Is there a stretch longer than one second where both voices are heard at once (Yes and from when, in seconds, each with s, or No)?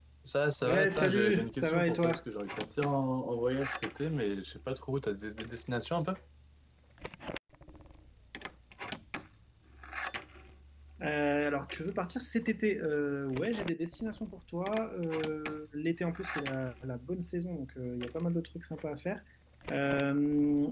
Yes, from 0.6 s